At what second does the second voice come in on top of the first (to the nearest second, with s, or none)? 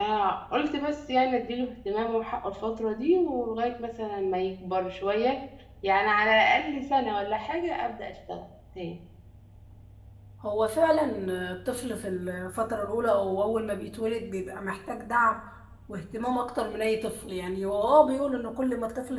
none